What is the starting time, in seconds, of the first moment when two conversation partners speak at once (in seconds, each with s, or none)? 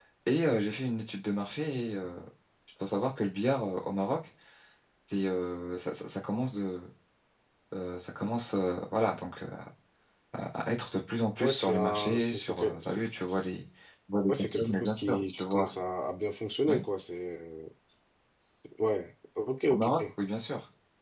11.4 s